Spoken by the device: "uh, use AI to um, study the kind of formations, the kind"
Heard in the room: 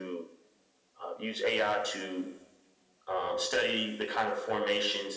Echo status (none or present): present